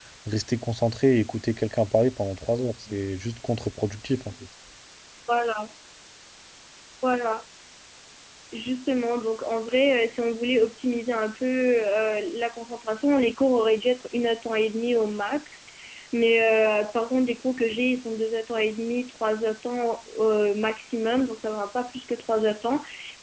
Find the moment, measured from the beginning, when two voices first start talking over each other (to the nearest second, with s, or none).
none